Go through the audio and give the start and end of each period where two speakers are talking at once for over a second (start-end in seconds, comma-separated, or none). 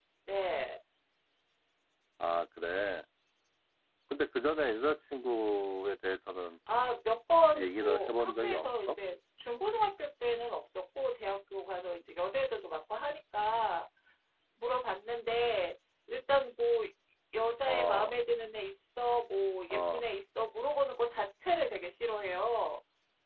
7.5-9.0